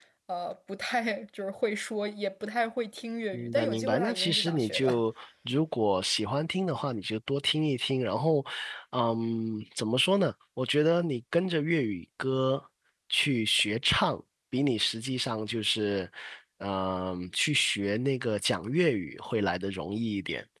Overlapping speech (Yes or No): Yes